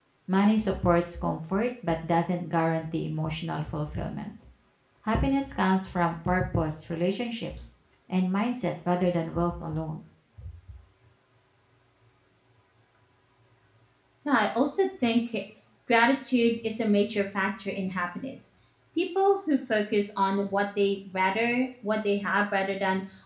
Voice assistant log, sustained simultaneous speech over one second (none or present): none